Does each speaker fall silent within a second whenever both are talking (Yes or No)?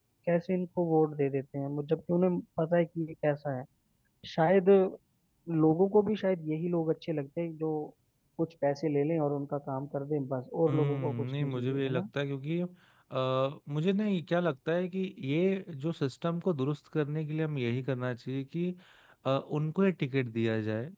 No